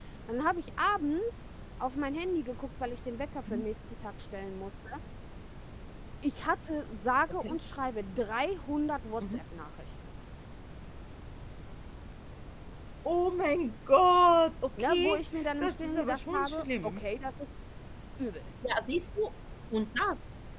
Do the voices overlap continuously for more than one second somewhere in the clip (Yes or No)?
Yes